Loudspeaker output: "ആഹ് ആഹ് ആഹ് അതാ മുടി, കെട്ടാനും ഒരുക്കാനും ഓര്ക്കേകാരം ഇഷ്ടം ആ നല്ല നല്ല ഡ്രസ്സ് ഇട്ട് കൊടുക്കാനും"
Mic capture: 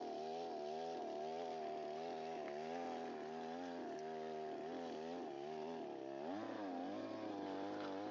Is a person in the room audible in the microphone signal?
No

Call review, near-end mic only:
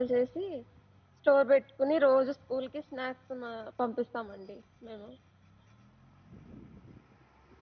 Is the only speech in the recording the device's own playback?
Yes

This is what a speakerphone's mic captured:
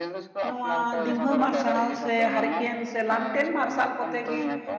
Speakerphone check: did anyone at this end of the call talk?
Yes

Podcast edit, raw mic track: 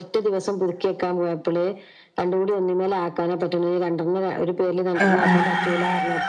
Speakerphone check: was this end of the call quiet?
No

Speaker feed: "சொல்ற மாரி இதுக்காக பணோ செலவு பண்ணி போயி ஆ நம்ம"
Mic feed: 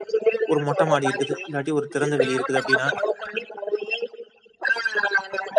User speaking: Yes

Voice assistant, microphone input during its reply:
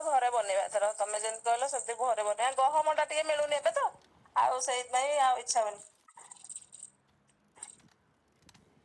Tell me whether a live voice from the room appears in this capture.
No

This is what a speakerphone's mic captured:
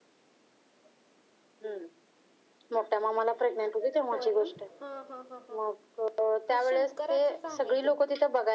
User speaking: Yes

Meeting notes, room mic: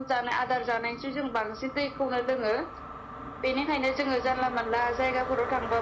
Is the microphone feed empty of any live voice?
Yes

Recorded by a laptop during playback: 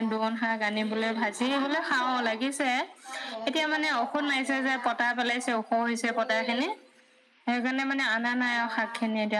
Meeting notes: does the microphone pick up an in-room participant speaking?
Yes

